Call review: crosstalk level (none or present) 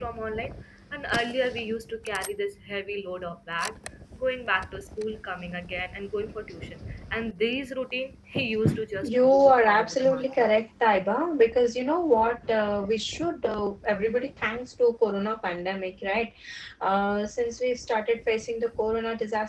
present